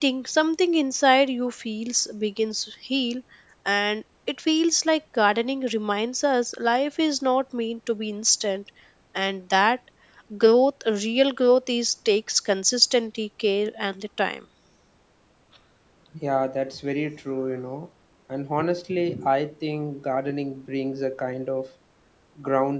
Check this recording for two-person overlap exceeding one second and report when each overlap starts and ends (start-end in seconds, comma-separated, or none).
none